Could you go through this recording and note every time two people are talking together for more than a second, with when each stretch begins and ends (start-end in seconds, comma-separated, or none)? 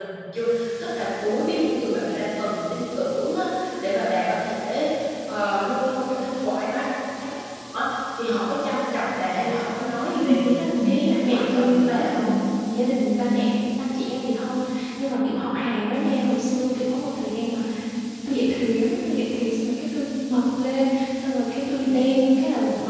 11.1-12.2